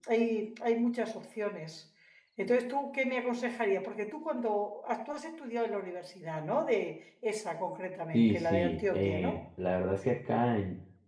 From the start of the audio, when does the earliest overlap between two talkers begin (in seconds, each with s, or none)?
8.1 s